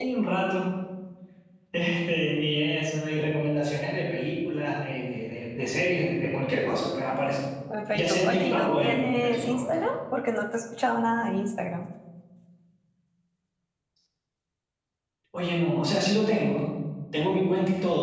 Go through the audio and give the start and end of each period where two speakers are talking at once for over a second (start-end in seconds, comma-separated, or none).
7.9-9.8